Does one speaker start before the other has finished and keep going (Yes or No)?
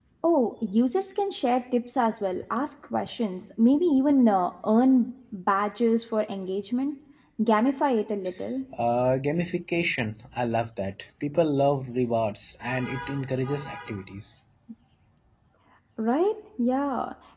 No